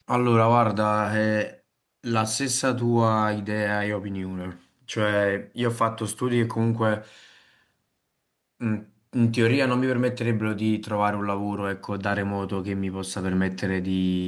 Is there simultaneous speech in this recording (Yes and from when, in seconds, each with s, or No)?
No